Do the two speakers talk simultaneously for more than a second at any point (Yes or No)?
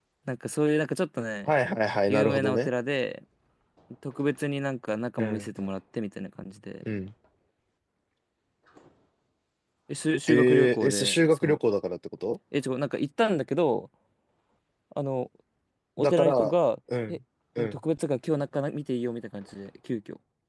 Yes